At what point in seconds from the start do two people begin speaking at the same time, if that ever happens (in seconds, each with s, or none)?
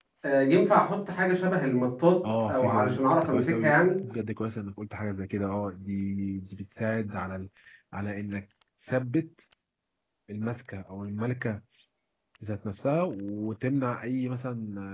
2.2 s